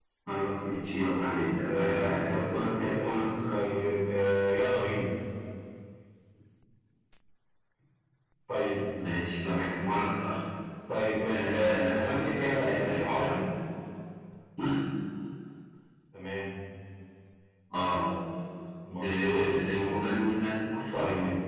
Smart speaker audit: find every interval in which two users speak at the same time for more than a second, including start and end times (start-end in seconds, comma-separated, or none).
1.7-3.6, 11.3-13.4